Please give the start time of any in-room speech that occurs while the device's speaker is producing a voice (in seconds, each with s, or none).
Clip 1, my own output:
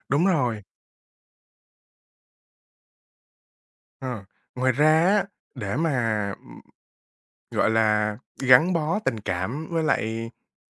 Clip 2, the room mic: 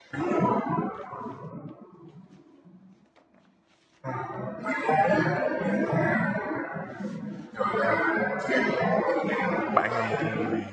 9.7 s